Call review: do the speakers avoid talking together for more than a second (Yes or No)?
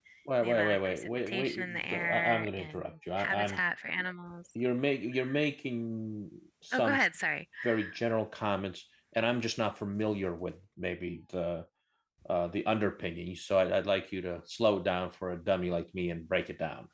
No